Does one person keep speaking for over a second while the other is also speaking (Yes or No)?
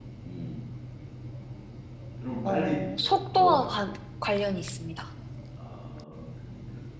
Yes